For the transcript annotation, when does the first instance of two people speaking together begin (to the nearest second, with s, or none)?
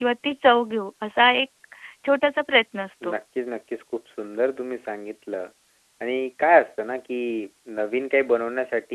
none